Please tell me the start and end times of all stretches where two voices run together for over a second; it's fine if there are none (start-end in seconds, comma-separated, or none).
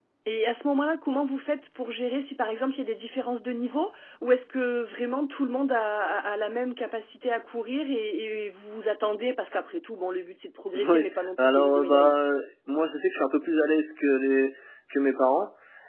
10.9-12.1